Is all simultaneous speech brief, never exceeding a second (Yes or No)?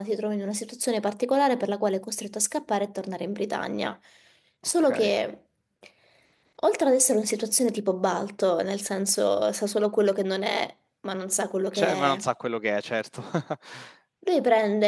Yes